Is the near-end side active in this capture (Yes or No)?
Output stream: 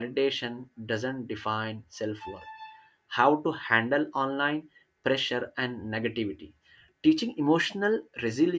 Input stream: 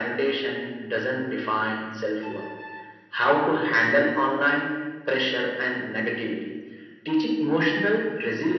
No